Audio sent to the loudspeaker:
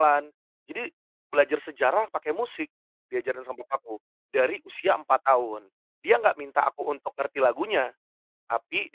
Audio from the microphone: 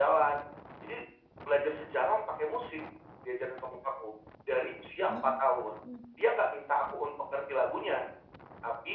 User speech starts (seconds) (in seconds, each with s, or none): 5.1 s